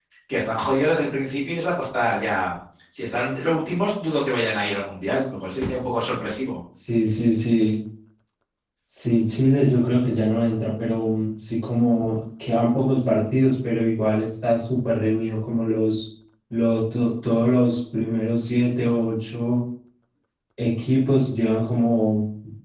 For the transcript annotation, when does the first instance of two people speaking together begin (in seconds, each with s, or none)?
none